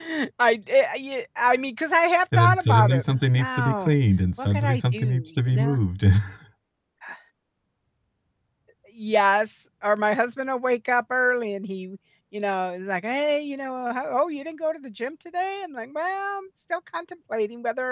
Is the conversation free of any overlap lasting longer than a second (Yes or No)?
No